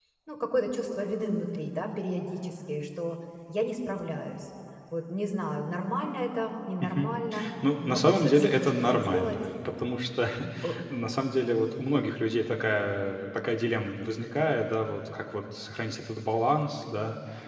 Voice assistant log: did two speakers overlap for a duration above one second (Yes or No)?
Yes